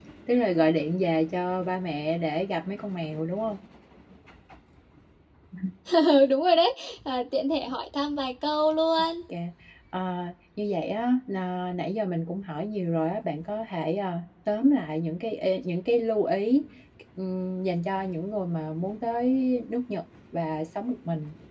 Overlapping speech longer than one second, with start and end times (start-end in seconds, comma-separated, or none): none